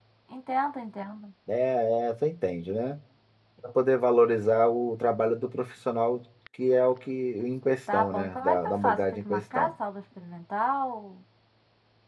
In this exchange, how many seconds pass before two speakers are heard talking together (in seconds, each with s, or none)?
7.9 s